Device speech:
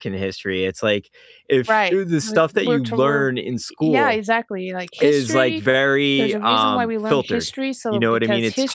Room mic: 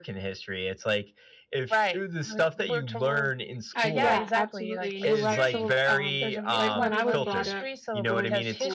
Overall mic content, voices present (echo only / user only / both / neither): both